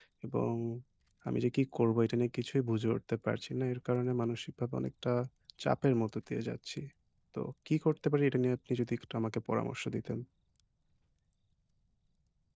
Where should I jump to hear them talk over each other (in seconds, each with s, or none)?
none